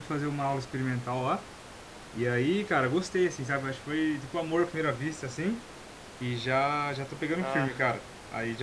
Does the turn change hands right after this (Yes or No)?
No